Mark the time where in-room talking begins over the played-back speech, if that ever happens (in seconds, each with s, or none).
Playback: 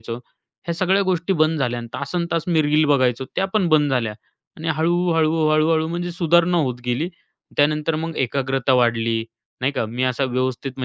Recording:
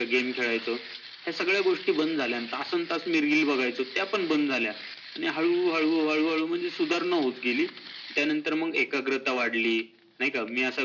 none